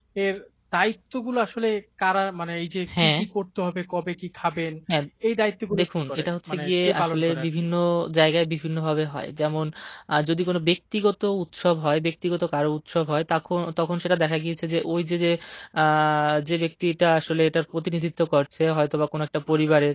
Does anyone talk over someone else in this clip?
Yes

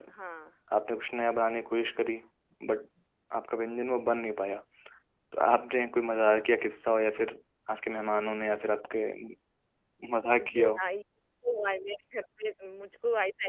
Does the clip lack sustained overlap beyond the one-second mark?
Yes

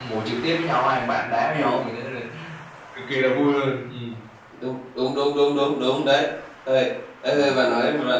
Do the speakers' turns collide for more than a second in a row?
No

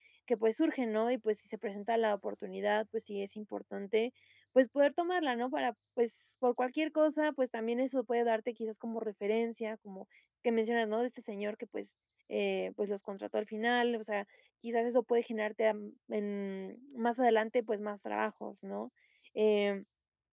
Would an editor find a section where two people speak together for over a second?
No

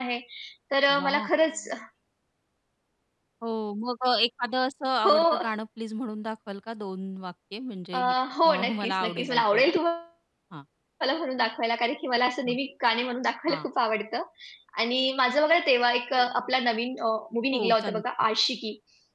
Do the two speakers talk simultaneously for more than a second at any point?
Yes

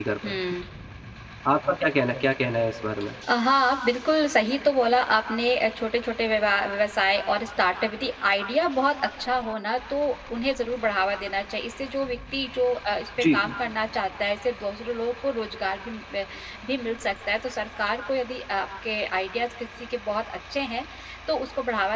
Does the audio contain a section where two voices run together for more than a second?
No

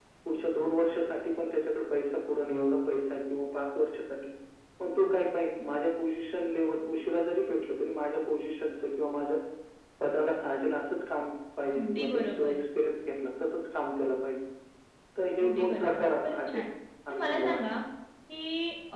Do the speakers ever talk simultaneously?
Yes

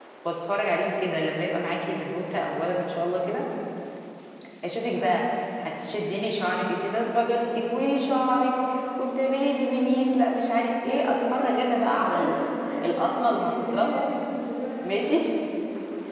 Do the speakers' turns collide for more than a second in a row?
Yes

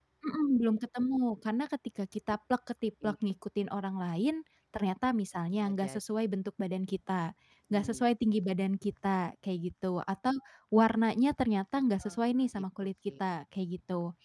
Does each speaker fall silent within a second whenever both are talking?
Yes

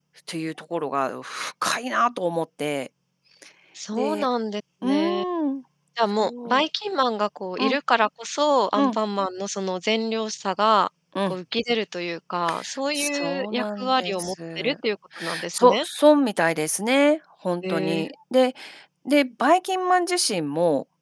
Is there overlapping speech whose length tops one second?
Yes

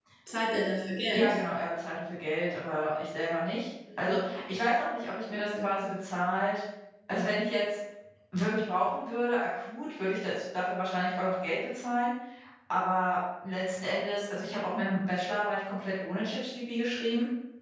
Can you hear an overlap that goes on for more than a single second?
No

